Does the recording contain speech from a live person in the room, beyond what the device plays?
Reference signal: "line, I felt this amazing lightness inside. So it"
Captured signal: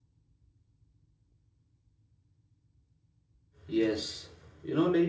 Yes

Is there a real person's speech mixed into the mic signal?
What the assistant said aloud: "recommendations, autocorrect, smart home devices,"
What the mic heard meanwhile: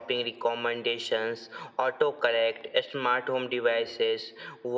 No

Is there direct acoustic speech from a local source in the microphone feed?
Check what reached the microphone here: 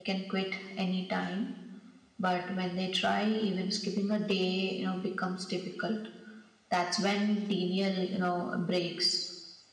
Yes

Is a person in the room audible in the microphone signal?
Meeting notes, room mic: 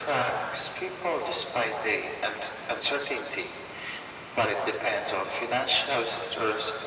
No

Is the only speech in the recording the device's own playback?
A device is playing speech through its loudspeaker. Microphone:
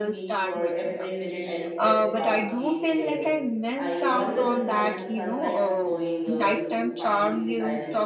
No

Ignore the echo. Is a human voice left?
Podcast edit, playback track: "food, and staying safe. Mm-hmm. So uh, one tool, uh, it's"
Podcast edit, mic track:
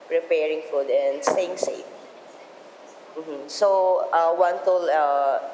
No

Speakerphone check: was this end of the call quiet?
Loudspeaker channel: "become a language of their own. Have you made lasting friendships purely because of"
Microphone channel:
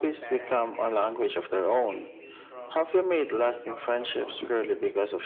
No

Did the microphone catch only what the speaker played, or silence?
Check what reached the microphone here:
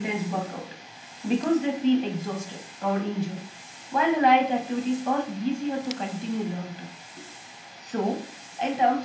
Yes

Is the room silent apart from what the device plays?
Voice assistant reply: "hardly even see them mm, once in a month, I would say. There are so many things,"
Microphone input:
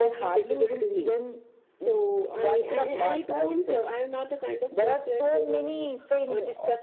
No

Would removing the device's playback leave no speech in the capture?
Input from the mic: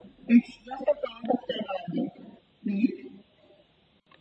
Yes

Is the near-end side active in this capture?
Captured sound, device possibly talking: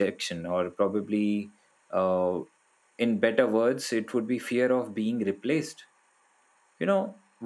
Yes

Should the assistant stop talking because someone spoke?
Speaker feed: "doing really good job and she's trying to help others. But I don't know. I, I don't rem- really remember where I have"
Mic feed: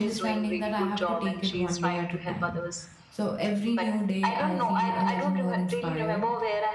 Yes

